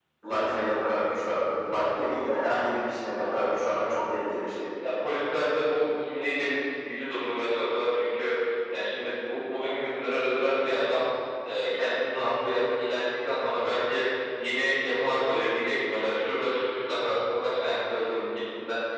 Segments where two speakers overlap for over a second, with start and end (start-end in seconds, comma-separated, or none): none